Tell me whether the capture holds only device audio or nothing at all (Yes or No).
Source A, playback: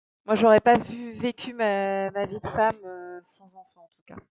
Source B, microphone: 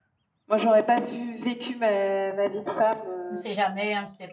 No